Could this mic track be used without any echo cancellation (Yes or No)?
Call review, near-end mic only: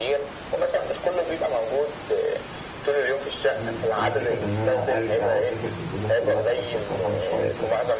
No